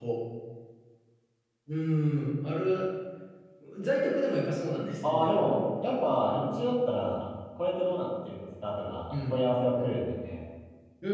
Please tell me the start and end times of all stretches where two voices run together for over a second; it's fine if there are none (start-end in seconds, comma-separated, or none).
none